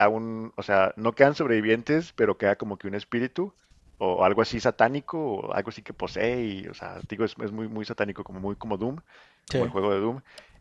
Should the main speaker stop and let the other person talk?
No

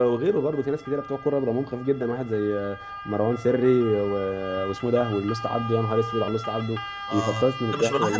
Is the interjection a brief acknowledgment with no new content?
No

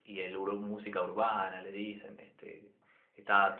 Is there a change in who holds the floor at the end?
Yes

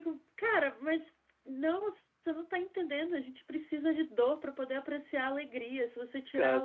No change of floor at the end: Yes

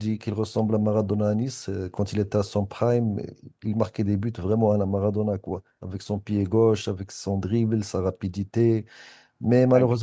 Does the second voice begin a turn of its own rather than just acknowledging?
No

